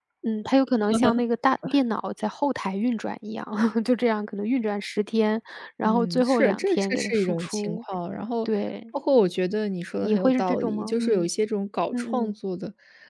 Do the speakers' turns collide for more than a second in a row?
Yes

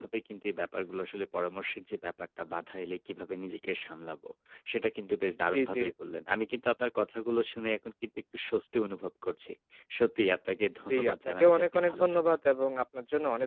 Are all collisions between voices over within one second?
No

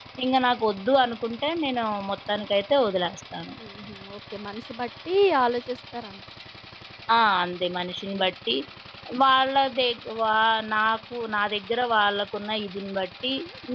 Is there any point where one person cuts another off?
No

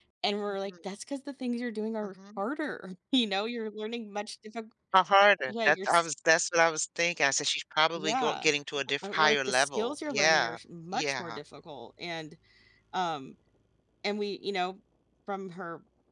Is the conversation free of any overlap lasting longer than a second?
No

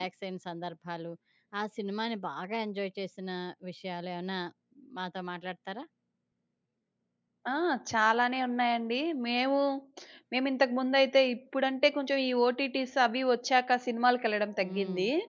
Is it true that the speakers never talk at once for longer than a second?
Yes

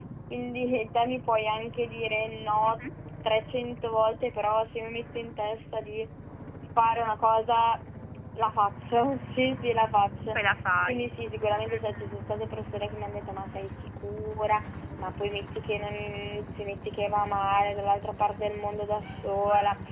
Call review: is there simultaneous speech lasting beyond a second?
No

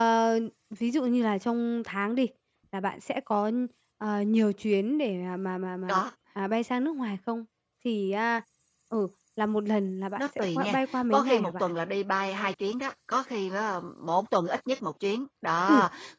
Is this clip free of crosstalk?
No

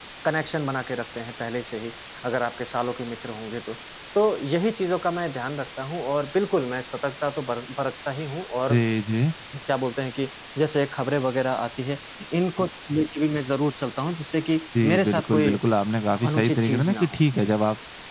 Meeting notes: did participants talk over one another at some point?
Yes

